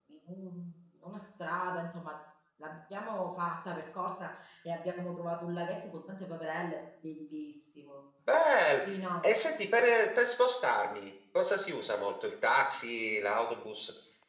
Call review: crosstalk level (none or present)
none